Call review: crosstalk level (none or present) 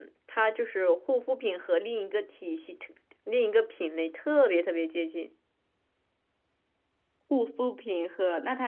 none